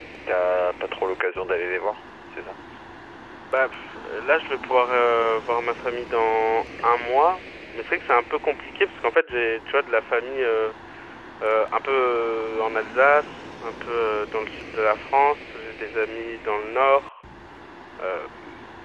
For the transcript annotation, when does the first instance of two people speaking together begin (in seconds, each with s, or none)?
none